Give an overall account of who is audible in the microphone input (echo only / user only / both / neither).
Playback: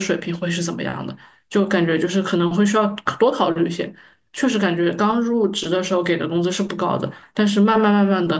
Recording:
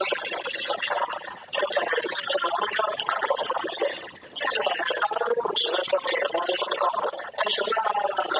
echo only